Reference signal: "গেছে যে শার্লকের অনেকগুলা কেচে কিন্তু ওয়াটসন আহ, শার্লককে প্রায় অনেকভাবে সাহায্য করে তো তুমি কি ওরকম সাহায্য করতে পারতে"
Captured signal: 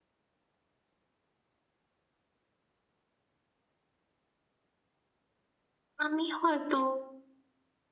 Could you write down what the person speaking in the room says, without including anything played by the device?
আমি হয়তো

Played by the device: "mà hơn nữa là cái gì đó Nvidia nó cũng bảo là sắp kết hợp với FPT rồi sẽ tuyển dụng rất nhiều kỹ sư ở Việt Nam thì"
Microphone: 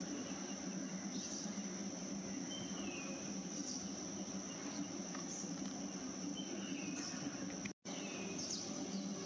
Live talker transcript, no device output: none

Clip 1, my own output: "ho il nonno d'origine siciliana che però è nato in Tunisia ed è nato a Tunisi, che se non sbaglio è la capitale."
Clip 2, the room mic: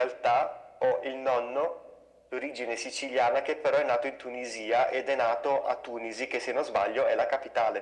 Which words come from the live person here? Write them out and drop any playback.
none

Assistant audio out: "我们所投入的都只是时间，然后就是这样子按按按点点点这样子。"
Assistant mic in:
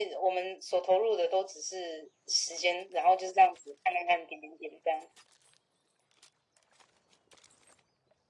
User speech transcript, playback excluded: none

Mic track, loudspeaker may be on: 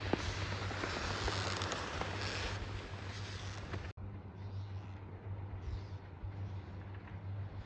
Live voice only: none

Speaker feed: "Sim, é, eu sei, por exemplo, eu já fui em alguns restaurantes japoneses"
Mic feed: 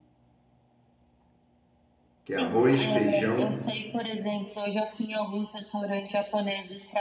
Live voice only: que é arroz, feijão,

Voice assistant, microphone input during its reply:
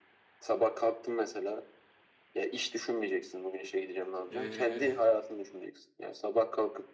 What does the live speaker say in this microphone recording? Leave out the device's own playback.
eee,

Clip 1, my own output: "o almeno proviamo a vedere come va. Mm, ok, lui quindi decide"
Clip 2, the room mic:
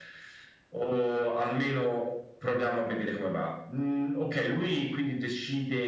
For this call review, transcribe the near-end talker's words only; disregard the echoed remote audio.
none

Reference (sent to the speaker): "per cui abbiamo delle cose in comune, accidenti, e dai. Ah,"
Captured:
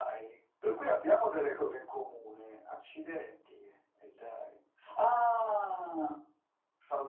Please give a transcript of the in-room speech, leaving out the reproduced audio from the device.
none

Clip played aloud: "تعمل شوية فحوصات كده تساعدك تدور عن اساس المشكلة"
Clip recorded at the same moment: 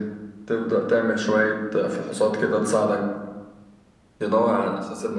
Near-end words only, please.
none

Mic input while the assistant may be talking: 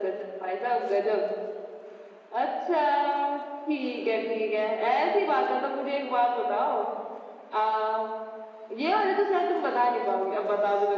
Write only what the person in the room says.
none

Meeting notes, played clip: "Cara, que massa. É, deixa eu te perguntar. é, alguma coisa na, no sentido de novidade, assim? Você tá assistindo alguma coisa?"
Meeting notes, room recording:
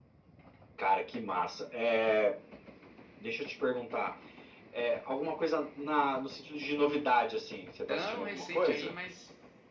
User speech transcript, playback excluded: tão recente aí, mas

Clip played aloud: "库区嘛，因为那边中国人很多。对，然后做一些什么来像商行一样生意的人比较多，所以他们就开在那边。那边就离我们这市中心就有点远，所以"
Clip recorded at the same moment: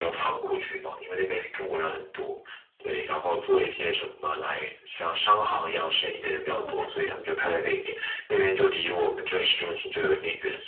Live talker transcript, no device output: 那我感觉。

